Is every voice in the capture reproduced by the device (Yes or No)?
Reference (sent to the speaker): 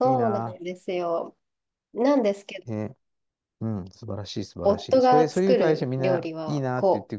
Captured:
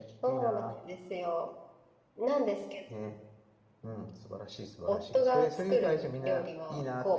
Yes